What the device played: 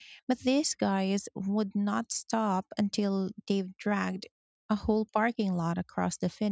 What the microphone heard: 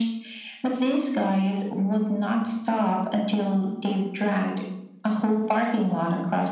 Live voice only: none

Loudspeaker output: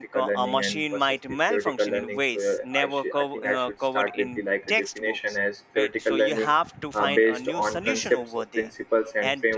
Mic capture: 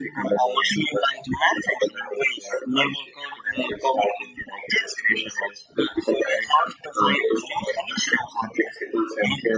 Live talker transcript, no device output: none

